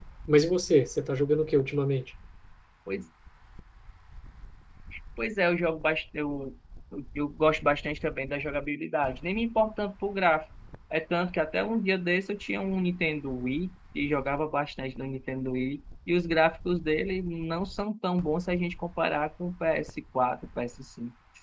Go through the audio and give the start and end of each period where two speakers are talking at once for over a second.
none

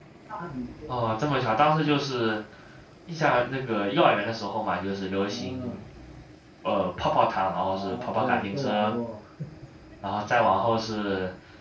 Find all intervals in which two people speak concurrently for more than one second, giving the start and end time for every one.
7.7-8.9

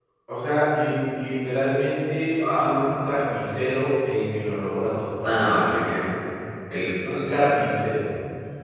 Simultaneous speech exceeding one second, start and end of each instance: none

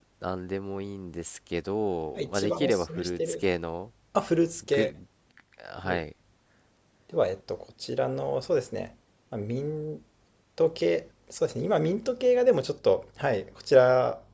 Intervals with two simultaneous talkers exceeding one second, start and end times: 2.2-3.5

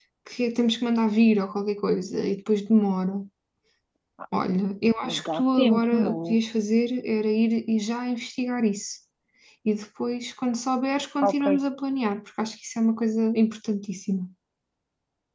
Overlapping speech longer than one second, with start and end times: 5.0-6.4

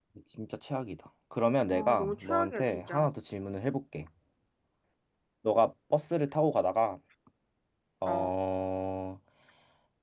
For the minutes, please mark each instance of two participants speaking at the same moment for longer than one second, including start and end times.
1.7-3.1

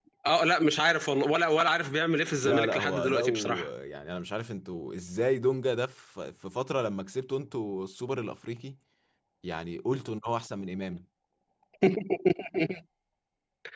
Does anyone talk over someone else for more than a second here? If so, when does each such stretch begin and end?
2.4-3.7

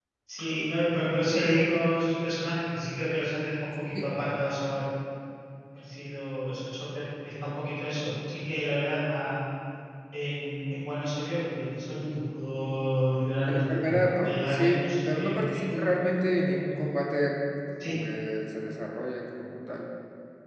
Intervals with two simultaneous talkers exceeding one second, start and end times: 13.5-15.9

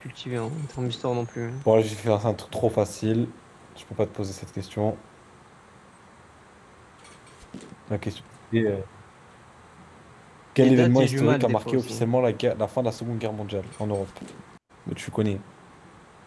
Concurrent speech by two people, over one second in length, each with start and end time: 10.6-12.1

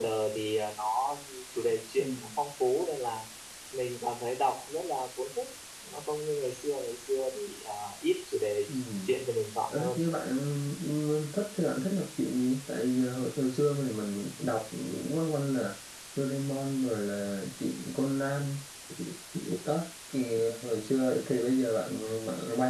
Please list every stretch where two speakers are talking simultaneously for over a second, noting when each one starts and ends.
none

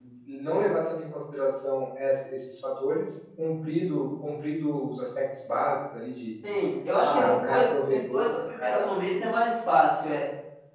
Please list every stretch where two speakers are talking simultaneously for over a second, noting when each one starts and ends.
7.0-8.8

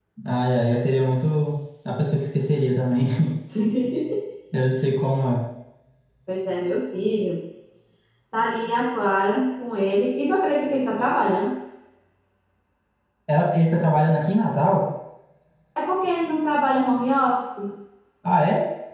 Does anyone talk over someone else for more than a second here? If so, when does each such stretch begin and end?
none

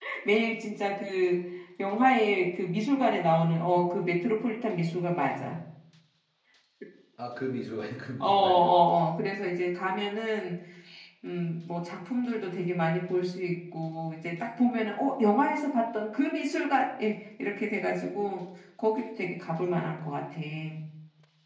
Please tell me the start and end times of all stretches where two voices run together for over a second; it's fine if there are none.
none

